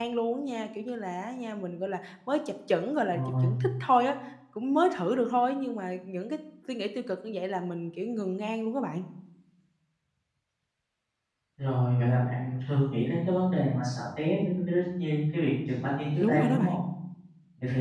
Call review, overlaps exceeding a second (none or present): none